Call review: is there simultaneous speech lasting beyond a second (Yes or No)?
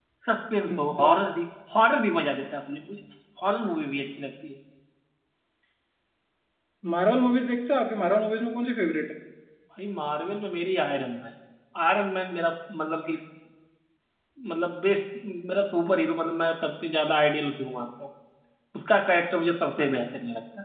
No